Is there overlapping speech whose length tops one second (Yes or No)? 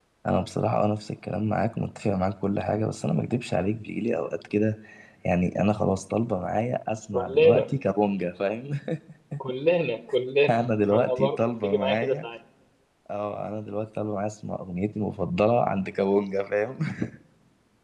Yes